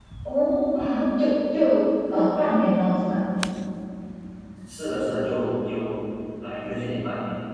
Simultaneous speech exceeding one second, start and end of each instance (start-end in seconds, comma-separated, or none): none